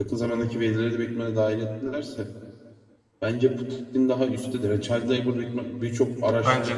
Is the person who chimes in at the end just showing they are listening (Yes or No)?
Yes